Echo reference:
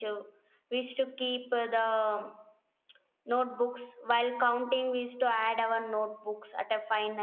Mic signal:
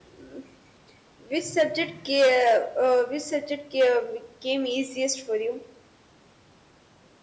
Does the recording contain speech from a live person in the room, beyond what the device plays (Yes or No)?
Yes